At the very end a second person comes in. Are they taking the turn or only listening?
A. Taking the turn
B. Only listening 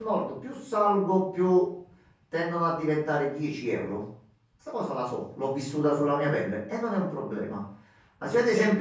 B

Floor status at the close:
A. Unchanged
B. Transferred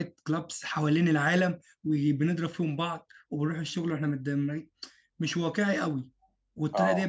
A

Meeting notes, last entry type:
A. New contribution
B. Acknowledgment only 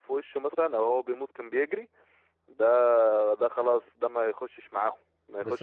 A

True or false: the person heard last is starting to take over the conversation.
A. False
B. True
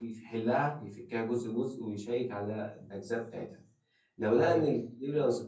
A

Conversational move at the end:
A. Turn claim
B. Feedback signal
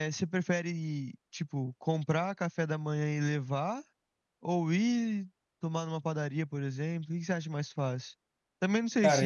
B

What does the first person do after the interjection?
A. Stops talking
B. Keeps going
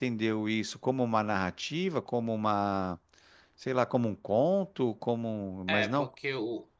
A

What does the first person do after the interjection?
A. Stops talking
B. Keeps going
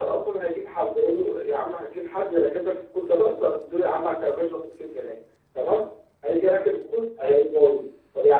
B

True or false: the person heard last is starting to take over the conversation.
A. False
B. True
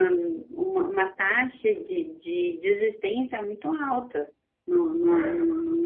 A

